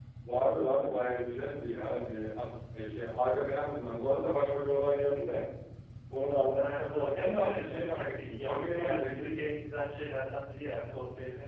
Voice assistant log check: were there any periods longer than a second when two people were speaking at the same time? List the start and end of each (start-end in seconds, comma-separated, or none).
6.6-9.4